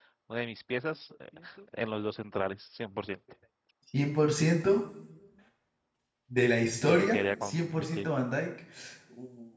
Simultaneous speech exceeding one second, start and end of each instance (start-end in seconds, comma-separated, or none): 6.8-8.1